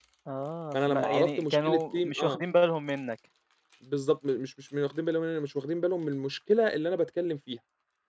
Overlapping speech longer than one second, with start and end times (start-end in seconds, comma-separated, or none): 0.7-2.4